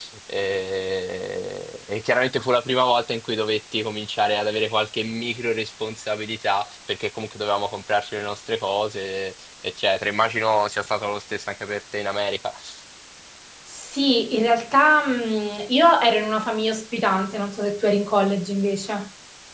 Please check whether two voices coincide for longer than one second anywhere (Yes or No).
No